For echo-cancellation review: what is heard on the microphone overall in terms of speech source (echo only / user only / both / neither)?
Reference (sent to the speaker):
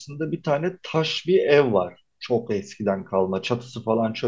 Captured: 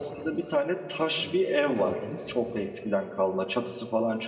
both